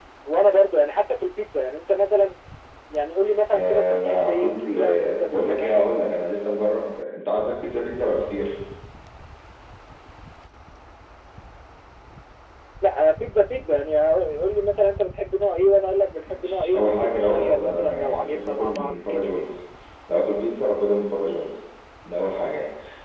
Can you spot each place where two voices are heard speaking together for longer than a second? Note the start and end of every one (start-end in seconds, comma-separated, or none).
3.5-5.9, 16.3-19.3